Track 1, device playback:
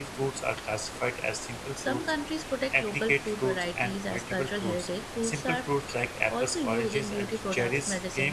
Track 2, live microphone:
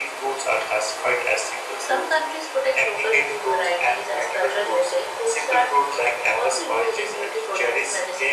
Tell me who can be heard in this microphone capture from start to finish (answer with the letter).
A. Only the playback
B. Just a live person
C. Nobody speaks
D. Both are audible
A